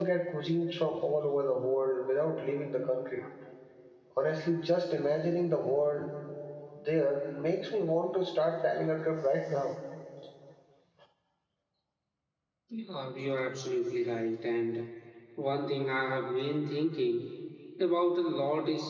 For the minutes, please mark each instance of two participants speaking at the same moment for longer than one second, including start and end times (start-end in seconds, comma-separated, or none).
none